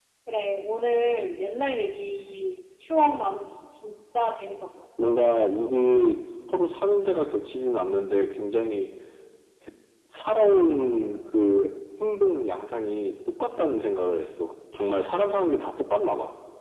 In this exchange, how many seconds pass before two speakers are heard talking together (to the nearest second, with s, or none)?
none